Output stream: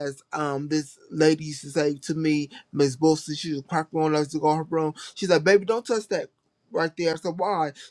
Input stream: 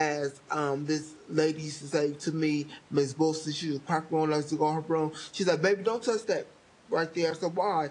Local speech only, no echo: none

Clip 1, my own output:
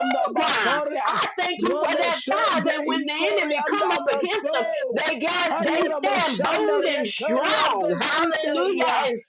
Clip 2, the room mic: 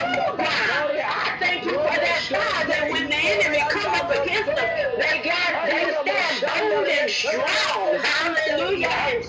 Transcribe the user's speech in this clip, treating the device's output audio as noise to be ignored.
none

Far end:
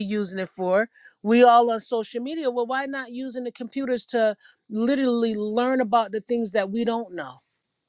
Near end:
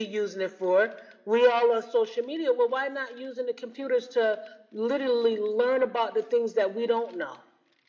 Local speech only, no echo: none

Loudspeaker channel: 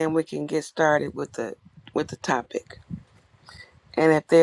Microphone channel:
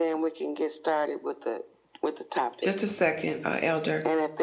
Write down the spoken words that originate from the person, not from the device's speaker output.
Just a second, uh, Elder.

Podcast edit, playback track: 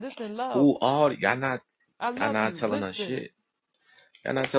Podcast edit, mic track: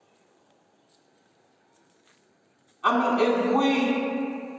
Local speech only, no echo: I mean, if we

